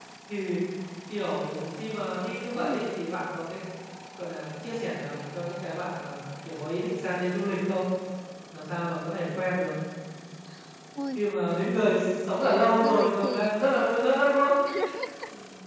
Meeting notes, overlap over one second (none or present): present